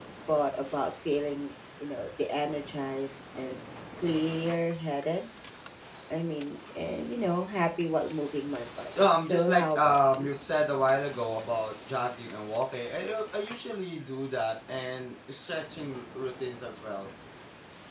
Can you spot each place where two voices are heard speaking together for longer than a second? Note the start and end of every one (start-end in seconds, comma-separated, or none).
9.0-10.4